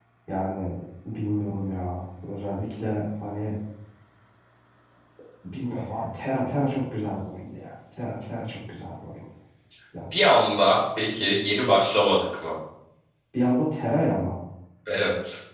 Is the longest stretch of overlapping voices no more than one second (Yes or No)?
Yes